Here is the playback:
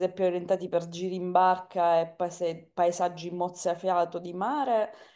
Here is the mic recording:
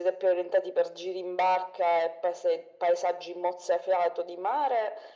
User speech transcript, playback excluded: none

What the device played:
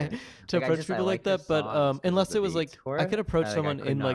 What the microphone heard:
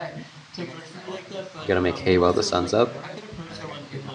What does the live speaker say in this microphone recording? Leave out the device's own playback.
you gotta make hay while the sun's up

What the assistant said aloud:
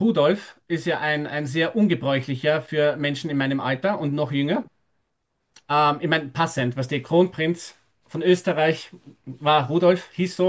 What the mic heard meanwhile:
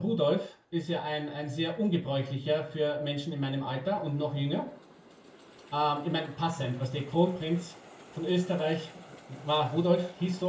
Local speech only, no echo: none

